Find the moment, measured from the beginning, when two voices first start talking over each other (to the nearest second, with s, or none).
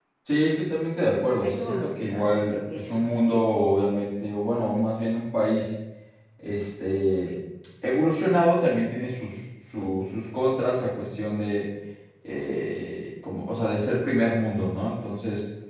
1 s